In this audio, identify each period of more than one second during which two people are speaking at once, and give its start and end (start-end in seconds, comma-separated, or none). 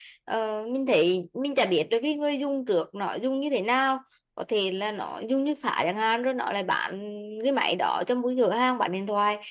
none